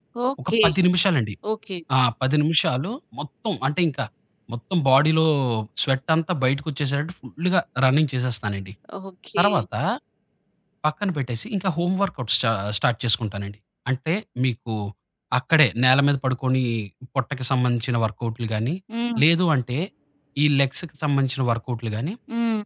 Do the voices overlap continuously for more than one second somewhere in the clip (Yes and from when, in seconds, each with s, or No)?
No